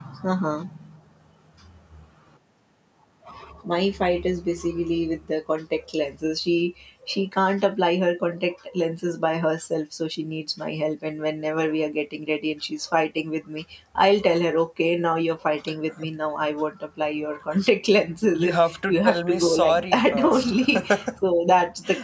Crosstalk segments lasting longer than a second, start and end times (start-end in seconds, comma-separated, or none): 18.3-20.5